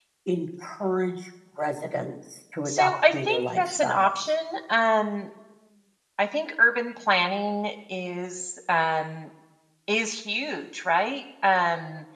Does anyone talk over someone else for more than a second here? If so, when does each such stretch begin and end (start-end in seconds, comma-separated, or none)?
2.6-4.2